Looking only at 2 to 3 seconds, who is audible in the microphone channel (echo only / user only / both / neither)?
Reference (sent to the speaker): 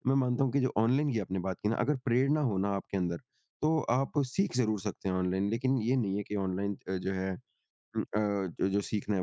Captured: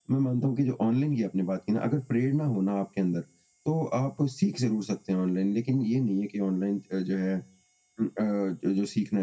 echo only